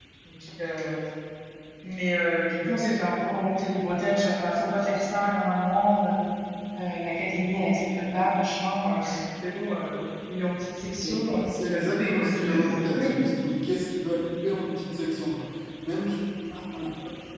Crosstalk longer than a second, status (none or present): present